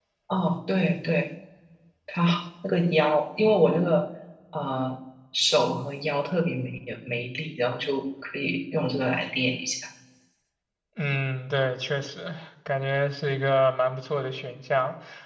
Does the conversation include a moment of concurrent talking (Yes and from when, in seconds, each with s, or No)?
No